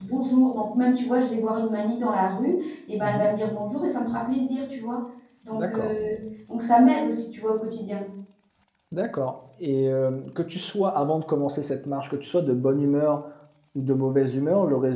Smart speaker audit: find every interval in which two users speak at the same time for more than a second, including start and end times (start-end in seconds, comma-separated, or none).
none